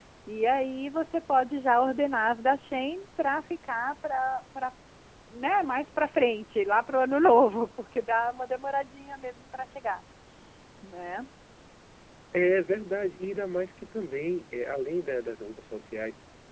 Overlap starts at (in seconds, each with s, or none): none